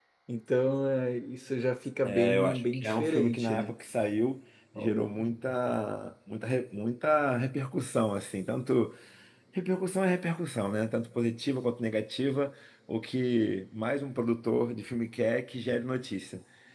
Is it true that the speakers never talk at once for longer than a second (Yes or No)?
No